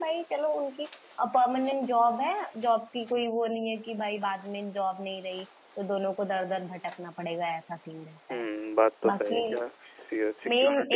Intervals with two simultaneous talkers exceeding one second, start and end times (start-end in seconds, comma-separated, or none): none